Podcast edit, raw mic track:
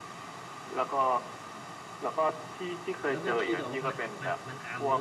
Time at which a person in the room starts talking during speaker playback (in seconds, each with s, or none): 3.1 s